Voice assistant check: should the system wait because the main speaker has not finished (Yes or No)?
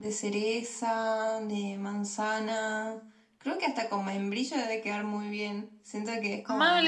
No